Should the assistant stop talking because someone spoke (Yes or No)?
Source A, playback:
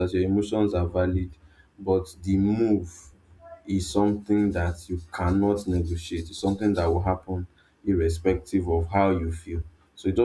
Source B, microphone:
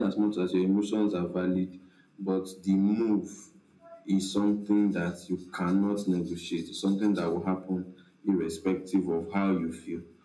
No